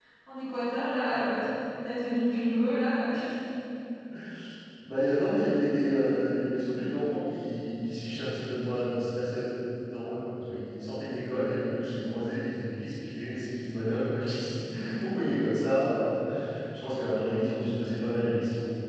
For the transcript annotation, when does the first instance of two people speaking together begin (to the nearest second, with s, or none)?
none